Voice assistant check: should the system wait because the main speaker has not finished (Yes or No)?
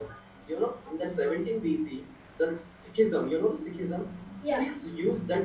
Yes